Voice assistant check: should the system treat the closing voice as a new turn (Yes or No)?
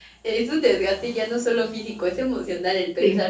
No